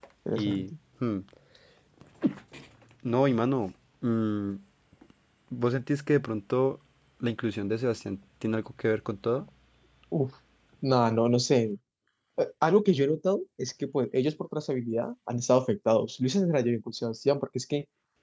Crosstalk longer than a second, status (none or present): none